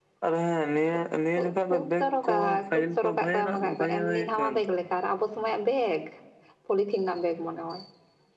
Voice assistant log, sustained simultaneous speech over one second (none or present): present